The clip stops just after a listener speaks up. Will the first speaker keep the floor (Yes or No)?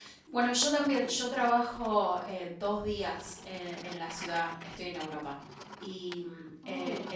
Yes